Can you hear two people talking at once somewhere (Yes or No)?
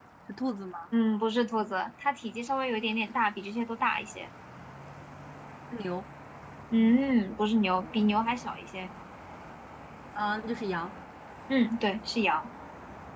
No